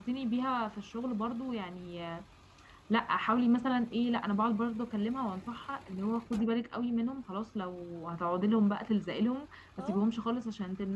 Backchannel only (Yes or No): Yes